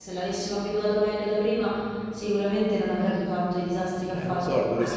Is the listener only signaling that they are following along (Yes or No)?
No